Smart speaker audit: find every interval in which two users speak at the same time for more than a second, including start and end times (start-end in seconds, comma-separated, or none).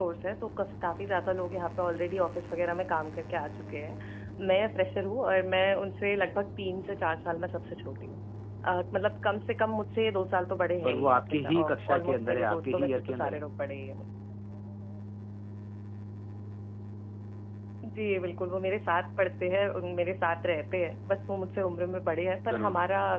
10.8-13.4